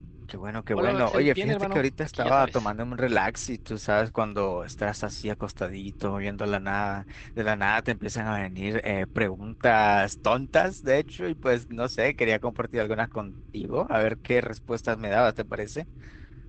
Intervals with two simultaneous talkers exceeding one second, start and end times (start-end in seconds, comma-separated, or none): 0.7-2.7